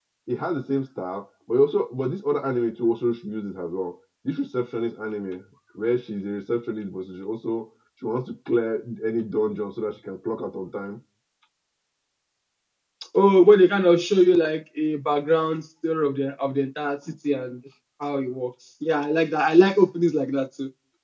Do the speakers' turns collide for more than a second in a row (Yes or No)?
No